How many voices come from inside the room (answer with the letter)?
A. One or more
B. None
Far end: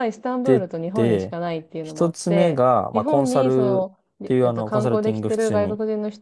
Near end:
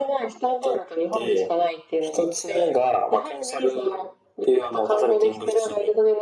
B